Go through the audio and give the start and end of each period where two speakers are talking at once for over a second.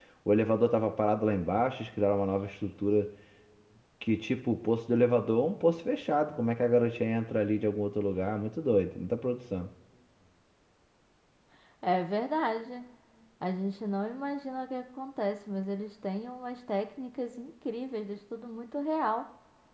none

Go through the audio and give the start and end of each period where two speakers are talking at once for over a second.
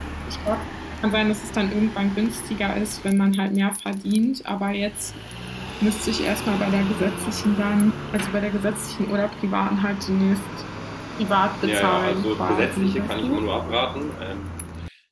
11.6-13.4

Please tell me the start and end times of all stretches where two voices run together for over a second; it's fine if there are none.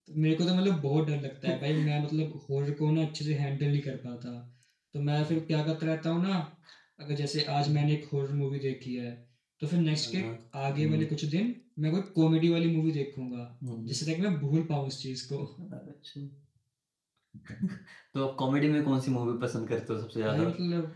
none

